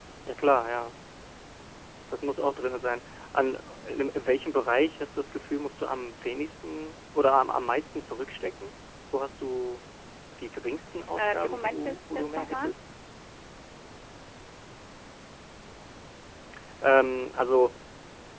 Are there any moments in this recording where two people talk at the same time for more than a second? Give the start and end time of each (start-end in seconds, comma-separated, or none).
11.2-12.7